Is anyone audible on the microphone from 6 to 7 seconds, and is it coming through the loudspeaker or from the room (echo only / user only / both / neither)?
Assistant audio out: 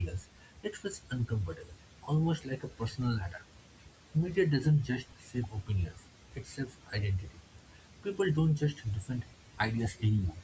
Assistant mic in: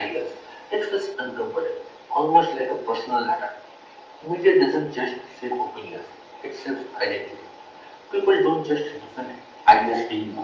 echo only